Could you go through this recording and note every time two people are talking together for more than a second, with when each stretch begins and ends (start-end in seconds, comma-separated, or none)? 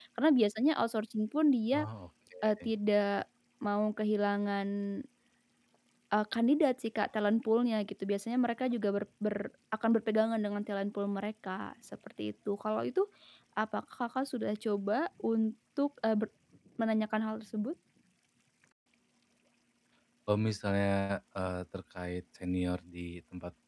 none